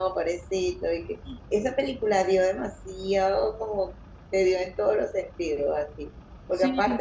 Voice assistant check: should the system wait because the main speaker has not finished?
Yes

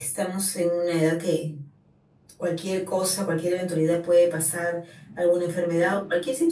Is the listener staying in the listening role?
Yes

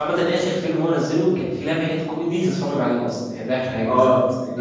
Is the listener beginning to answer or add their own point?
Yes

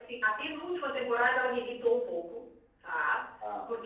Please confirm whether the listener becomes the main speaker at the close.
No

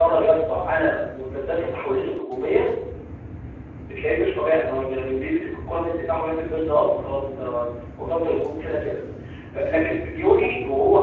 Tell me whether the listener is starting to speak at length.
No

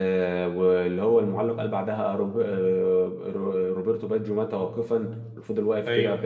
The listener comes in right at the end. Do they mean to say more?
No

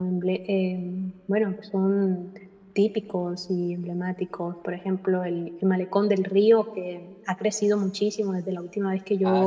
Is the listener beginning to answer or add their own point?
Yes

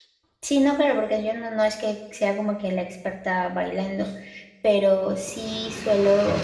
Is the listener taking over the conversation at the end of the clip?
No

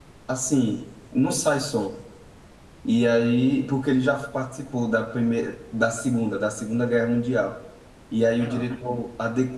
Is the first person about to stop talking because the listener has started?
No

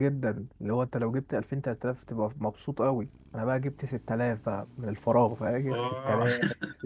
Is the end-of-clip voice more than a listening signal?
No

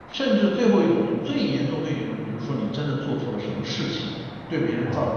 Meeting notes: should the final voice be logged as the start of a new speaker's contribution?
No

